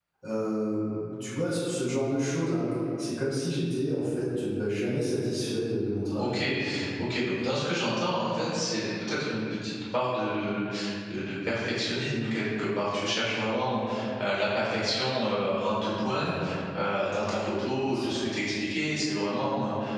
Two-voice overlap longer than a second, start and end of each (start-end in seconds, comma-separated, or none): none